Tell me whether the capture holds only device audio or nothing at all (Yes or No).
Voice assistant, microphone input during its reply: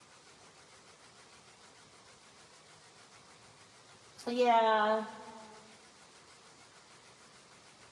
No